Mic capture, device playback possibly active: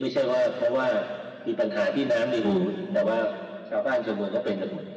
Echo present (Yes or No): Yes